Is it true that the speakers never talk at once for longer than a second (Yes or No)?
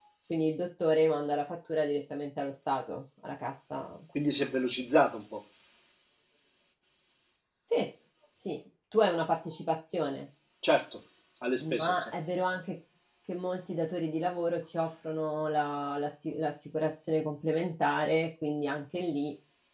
Yes